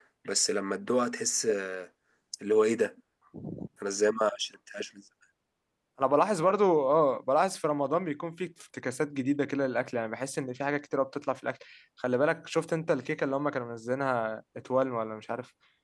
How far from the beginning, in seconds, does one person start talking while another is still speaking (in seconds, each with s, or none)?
none